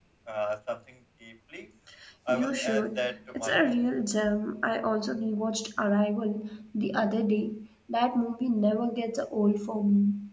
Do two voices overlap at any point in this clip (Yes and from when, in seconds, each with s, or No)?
Yes, from 2.3 s